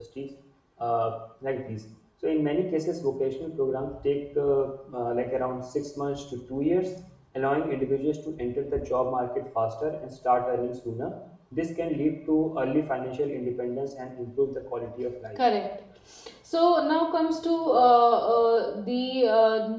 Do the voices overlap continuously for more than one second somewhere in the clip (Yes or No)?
No